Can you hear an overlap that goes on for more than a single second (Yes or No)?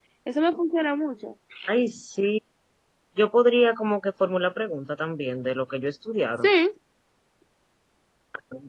No